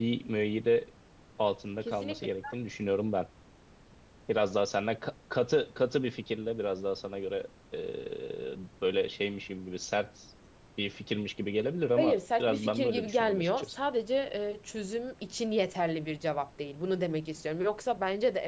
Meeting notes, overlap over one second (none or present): present